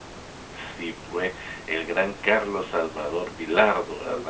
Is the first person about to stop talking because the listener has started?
Yes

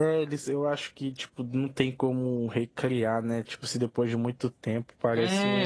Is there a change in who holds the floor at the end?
Yes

